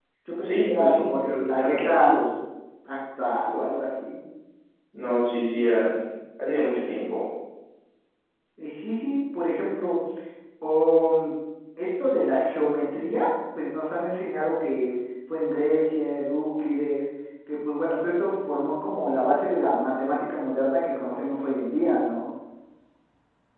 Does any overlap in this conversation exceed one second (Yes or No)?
Yes